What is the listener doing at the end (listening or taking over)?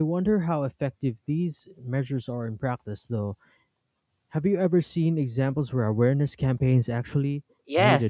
taking over